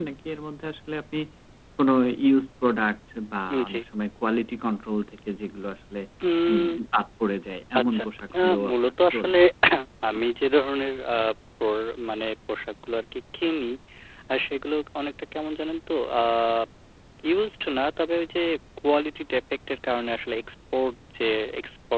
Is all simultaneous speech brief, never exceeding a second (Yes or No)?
No